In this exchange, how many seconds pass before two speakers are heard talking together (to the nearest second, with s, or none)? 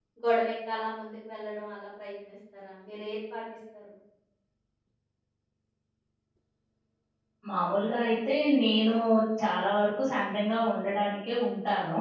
none